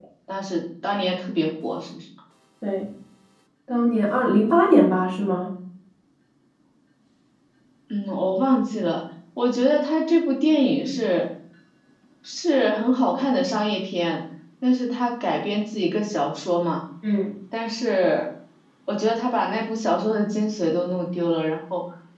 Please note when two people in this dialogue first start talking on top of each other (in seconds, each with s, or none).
none